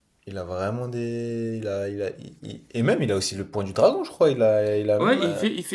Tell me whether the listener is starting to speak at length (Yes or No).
Yes